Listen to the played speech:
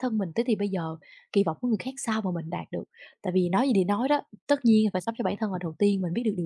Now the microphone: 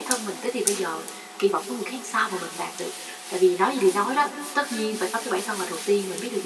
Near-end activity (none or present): none